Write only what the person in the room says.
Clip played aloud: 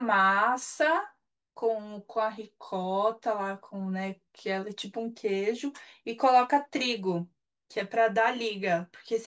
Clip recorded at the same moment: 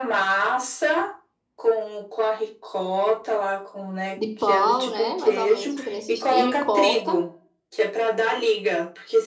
de pão, né? Mais ou menos, fica nesse estilo e corta.

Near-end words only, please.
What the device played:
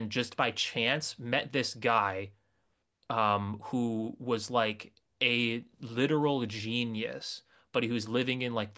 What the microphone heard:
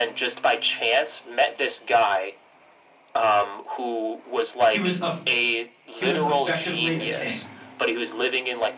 He was a he was effectively a king.

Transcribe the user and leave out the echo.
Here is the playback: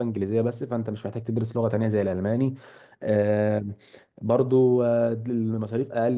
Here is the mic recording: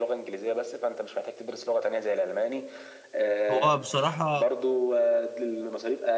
هو بصراحة

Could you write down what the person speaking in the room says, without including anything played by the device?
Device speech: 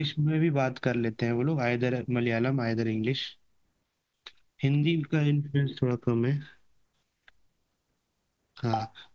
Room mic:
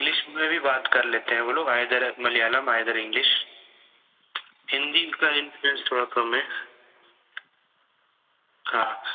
none

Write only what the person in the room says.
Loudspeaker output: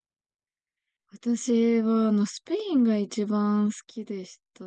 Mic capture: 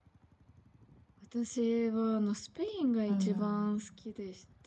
うん。

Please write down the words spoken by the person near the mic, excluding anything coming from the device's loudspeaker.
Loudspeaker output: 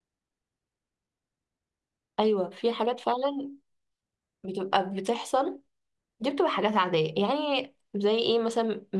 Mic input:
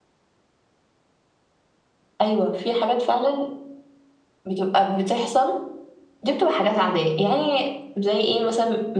none

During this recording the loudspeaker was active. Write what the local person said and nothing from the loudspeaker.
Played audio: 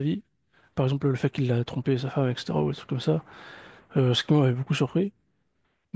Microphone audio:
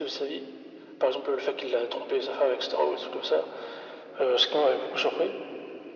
none

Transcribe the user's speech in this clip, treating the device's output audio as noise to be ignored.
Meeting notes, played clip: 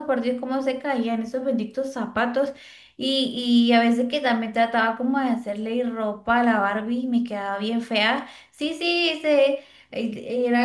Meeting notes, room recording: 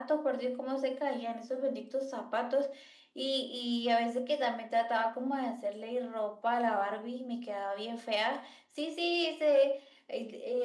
none

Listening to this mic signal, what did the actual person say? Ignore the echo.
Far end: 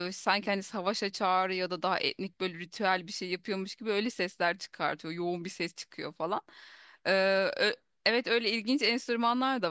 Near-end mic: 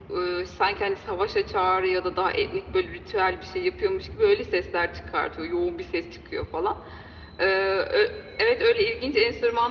none

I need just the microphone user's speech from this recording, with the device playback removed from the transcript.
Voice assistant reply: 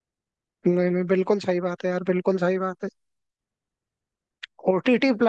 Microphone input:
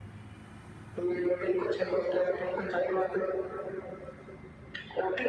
none

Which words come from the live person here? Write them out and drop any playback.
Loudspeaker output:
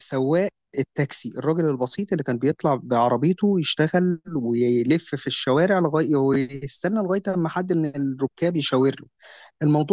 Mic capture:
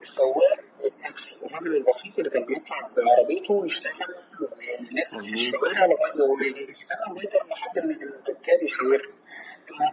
مظبوط

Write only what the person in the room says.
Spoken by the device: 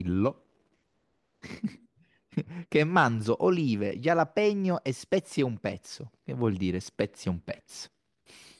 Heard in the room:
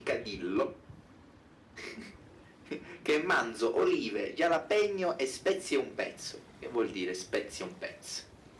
none

